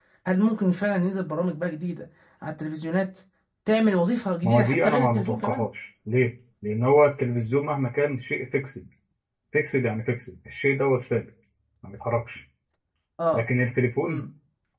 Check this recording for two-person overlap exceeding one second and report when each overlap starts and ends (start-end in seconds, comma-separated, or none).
4.4-5.6